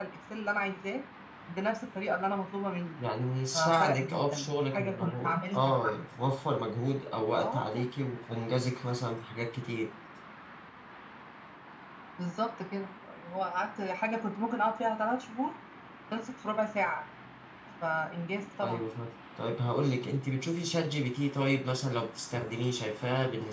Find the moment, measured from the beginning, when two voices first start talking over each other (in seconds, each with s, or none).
3.5 s